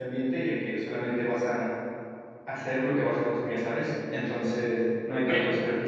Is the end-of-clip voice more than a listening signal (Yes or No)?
Yes